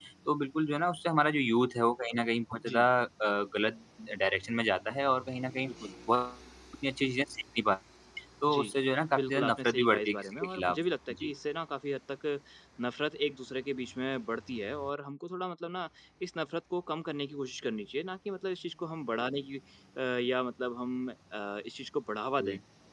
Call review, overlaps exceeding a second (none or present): present